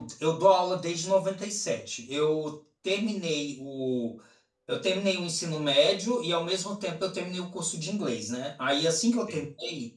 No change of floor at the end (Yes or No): Yes